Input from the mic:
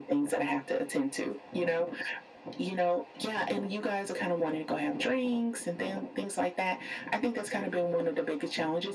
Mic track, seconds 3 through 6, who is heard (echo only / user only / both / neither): echo only